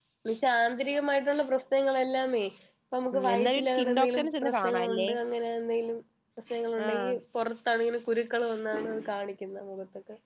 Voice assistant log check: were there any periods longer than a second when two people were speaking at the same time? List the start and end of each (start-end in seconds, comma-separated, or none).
3.1-5.1